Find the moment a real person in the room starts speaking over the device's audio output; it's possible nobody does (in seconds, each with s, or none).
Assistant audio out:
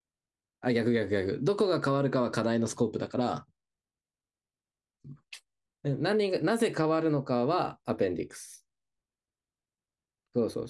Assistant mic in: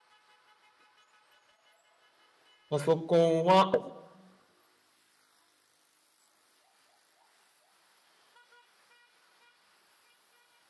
2.7 s